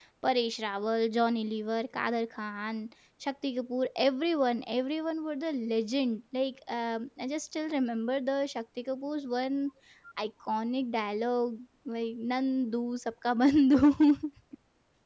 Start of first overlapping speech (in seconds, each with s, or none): none